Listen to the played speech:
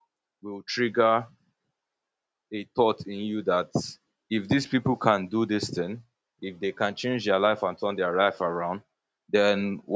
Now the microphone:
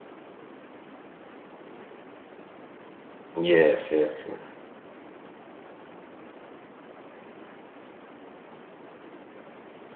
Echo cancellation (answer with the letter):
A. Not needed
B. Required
A